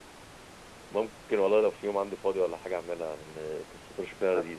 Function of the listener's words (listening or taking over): listening